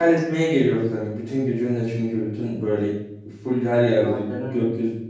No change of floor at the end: Yes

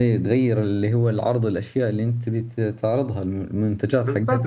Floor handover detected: Yes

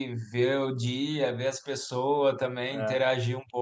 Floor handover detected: No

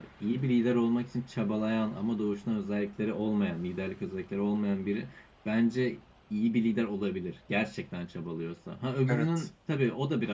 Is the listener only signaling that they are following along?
Yes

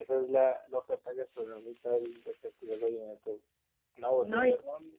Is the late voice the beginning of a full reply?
No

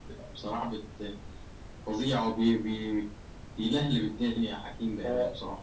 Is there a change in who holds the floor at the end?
Yes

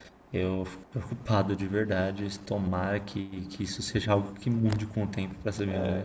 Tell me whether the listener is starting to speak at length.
Yes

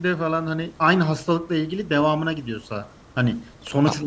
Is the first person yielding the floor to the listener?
Yes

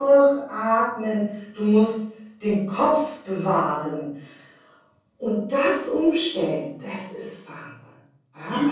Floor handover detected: Yes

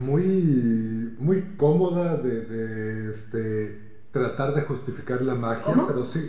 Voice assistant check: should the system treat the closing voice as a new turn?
No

